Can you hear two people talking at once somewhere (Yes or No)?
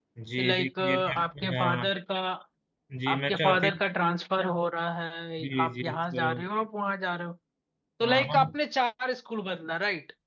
Yes